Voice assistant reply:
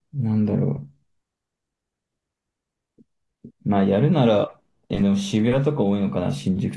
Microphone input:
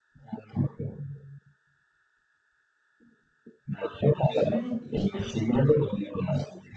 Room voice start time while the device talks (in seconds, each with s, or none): 4.1 s